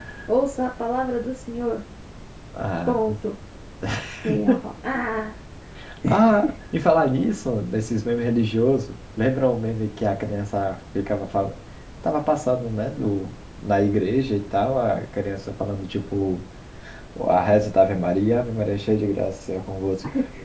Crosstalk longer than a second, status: none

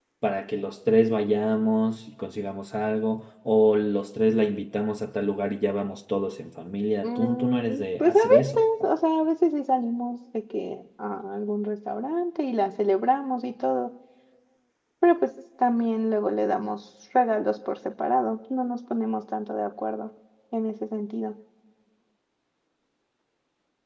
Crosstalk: present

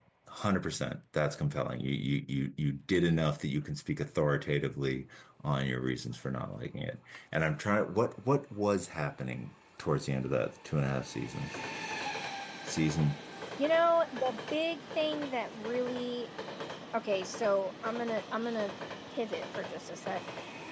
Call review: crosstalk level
none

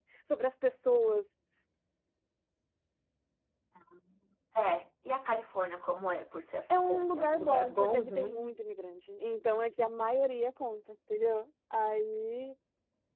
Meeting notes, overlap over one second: present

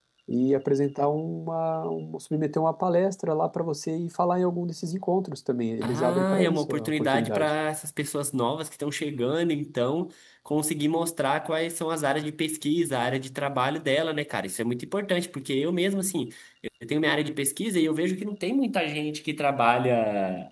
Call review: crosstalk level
present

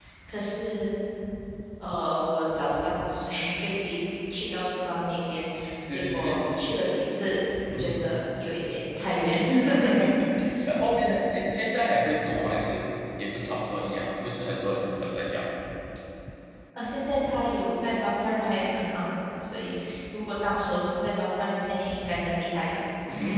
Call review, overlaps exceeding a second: none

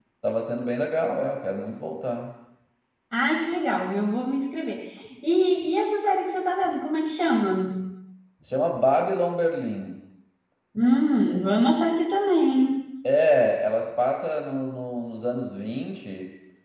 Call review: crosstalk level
none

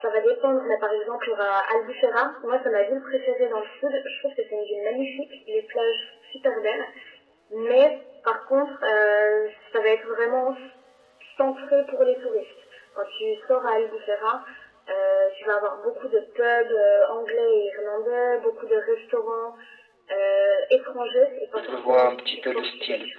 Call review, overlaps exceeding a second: present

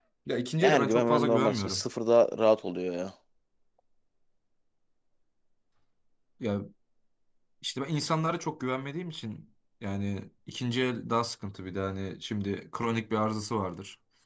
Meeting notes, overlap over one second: present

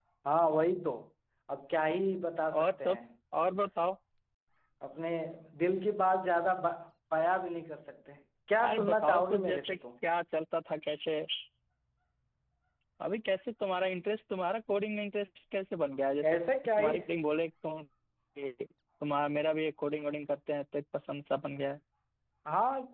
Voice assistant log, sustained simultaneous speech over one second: present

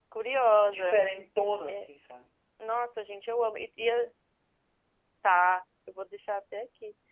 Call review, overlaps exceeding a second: none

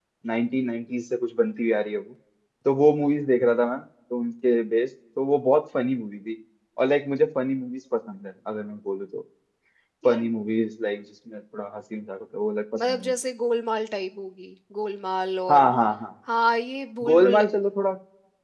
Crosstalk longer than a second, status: none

